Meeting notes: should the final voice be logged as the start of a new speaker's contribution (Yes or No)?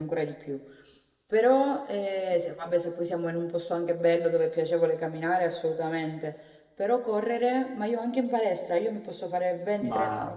No